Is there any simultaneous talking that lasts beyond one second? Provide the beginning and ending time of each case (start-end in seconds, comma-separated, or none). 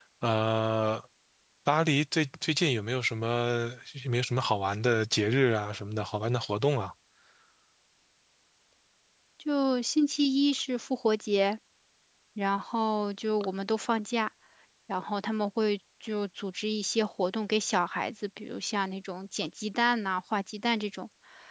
none